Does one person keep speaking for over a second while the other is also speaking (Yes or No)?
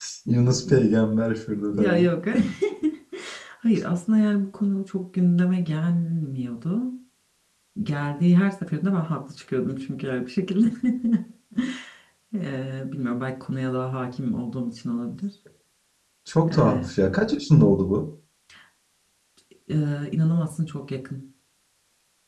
No